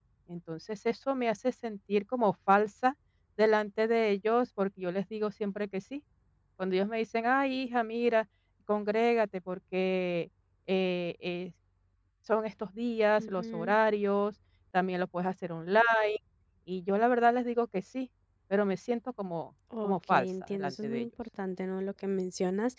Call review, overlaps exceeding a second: present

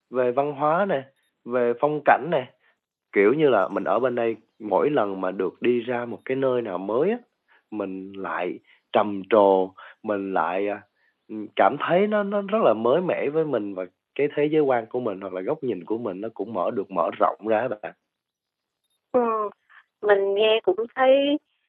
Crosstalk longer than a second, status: none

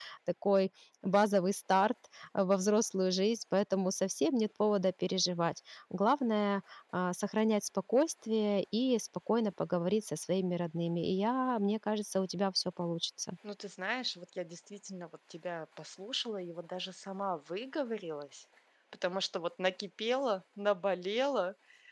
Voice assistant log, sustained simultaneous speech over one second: none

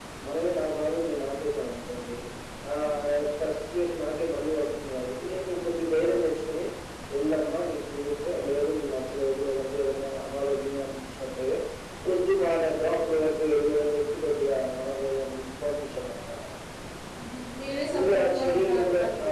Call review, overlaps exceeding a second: present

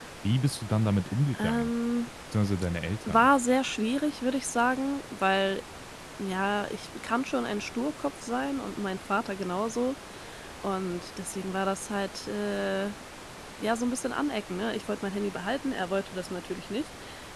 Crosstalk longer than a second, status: none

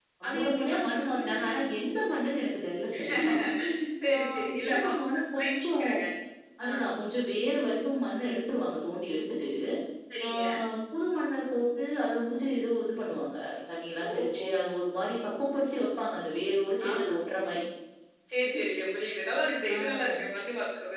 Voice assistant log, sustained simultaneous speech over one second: present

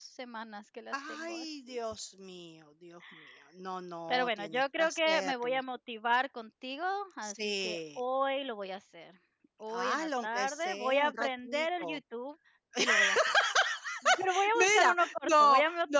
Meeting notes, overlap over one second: present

